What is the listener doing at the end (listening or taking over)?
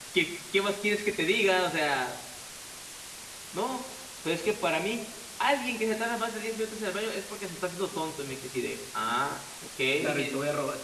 taking over